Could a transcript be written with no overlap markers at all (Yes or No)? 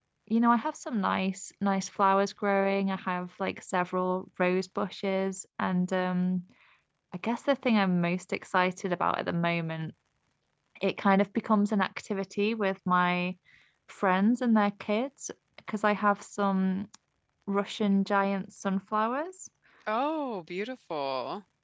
Yes